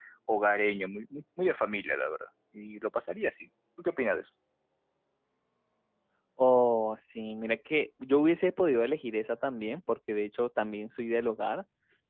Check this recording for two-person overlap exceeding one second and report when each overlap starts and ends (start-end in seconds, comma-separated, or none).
none